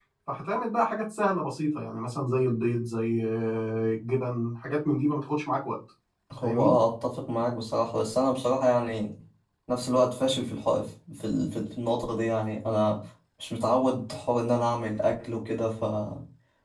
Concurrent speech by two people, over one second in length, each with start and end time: none

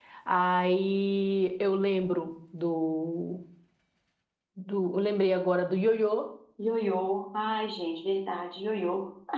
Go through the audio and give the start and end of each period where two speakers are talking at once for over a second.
none

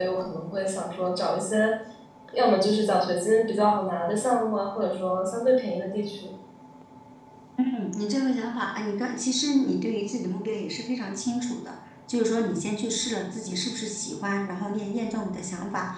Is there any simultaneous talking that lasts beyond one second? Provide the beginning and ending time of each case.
none

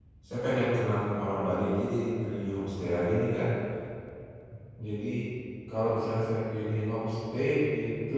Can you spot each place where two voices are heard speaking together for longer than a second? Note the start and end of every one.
none

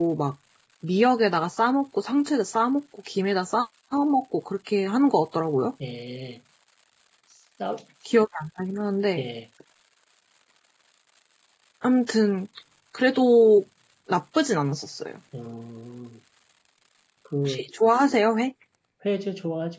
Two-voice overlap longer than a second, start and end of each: none

